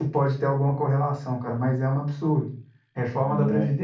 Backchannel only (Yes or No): Yes